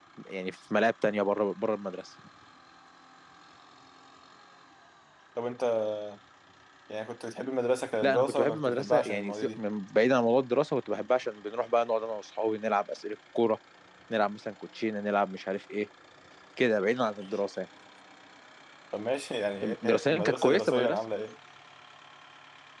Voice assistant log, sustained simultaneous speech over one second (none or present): present